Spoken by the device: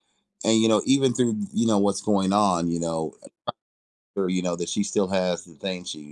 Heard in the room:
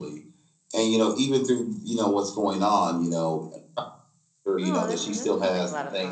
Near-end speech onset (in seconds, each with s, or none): 4.6 s